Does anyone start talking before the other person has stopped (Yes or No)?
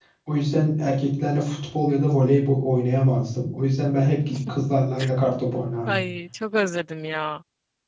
No